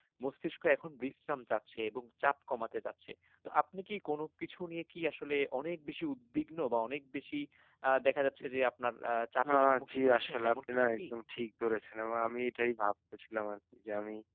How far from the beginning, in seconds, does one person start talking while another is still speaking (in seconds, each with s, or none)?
9.4 s